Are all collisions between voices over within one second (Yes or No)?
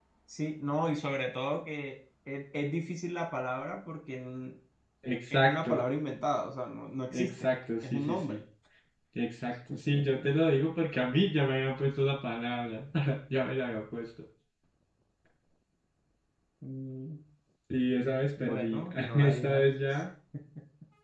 No